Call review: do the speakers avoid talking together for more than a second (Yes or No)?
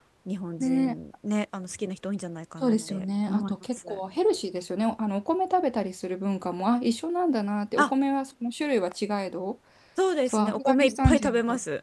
No